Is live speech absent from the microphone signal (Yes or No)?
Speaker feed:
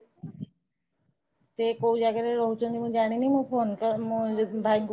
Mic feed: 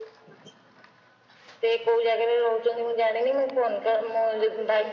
Yes